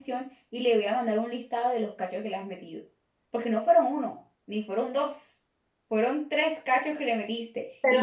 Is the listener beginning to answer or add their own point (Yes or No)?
No